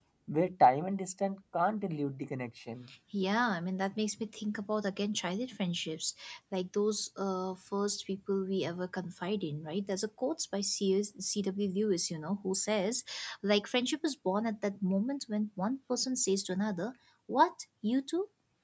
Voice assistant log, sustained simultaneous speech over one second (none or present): none